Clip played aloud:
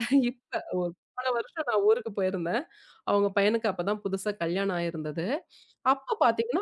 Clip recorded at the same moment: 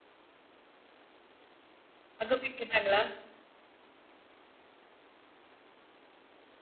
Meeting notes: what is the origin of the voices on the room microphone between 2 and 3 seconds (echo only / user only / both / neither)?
user only